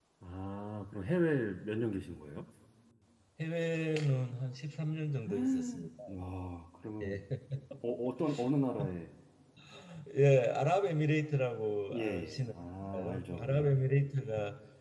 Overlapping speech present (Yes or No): Yes